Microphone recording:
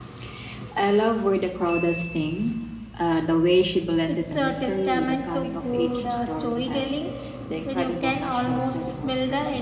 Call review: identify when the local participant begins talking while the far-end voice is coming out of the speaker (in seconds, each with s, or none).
4.1 s